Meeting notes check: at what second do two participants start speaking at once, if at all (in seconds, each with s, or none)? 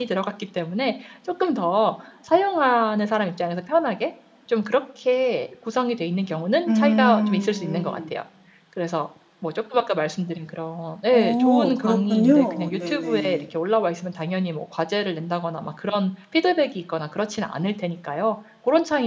6.7 s